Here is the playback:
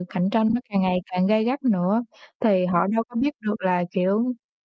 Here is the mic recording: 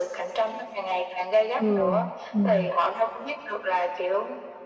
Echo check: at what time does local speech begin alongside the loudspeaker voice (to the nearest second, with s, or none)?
2 s